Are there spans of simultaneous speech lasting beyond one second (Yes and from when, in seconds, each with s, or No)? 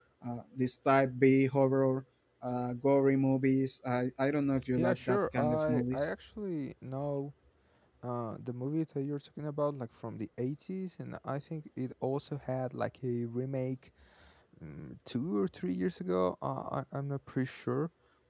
Yes, from 4.5 s